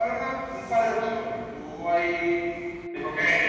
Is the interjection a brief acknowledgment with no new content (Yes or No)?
No